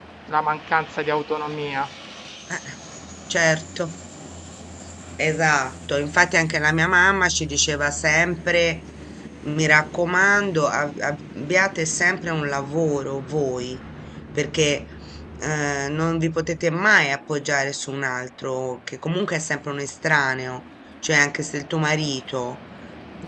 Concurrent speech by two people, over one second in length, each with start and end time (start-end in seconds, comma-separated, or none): none